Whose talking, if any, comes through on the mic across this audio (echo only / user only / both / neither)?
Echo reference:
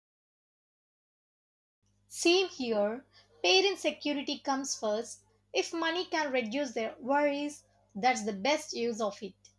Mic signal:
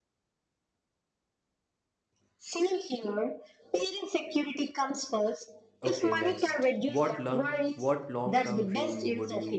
both